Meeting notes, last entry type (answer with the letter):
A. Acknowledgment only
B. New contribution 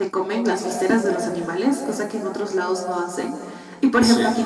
A